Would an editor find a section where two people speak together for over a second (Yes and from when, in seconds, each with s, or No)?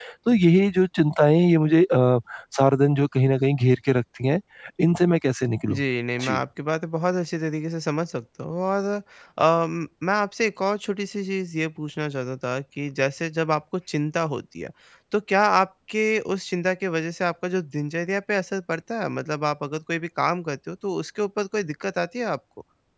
No